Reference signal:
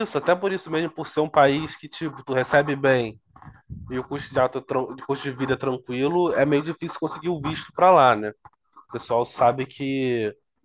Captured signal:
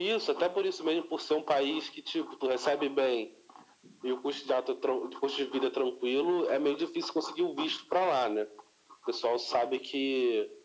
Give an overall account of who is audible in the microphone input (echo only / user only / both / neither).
echo only